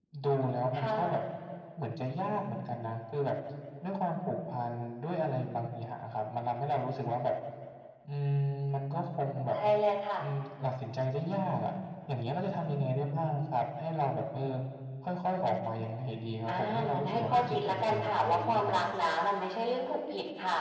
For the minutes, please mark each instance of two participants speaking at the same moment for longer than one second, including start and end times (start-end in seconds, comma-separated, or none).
16.5-18.8